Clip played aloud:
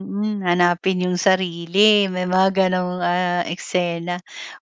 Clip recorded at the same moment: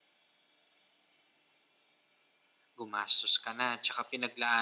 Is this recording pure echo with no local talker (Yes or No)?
No